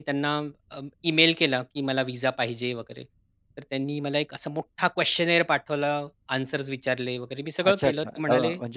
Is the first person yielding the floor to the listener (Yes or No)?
Yes